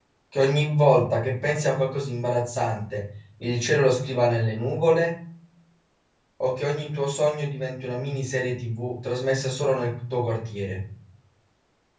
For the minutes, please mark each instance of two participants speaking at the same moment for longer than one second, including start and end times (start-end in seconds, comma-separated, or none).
none